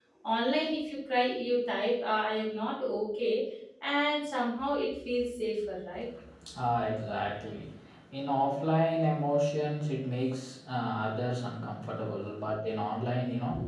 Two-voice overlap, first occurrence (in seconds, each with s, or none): none